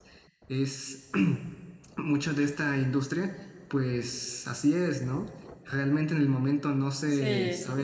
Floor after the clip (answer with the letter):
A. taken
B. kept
B